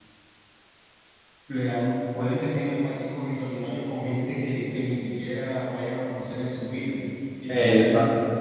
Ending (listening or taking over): listening